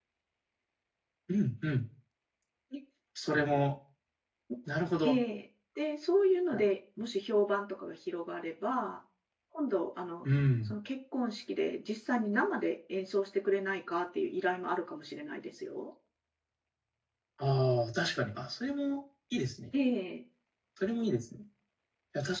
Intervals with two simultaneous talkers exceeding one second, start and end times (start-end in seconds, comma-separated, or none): none